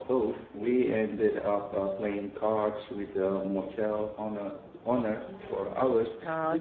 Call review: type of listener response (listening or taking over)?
taking over